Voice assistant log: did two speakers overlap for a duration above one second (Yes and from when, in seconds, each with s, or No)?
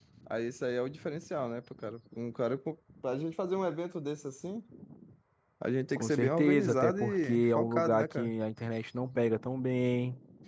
Yes, from 6.0 s